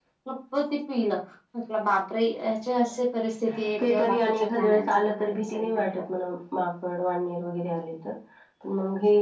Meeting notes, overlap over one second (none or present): present